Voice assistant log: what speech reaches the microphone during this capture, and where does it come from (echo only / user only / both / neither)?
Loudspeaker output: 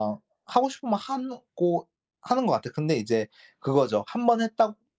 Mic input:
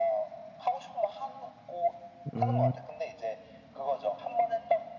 both